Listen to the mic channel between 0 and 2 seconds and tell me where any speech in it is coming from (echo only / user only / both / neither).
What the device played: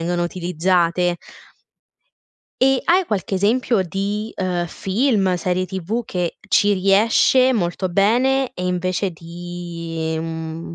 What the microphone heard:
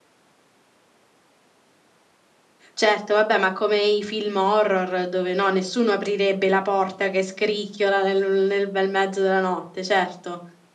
neither